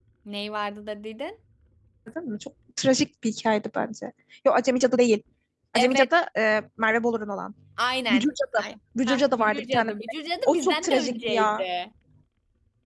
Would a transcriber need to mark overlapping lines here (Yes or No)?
Yes